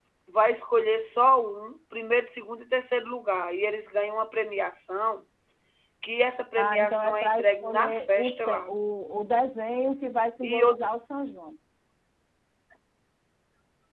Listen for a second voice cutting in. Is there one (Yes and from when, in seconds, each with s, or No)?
Yes, from 6.6 s